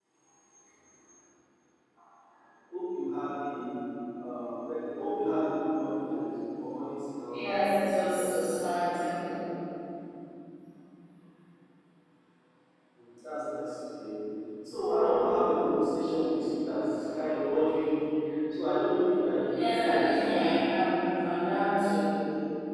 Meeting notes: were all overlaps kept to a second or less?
No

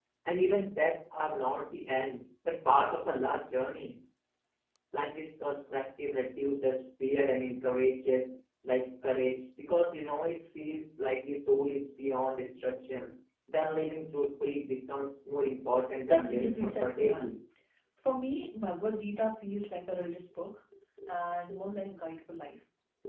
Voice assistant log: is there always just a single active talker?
No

